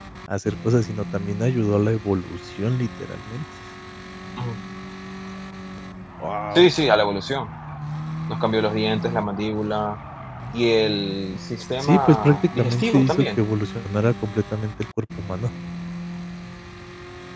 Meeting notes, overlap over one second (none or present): present